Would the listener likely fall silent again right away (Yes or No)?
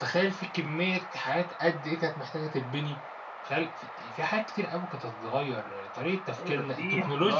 No